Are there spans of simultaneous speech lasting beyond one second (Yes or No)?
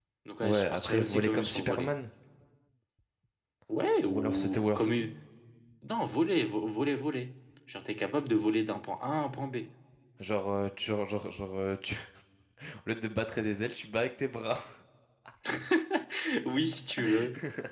Yes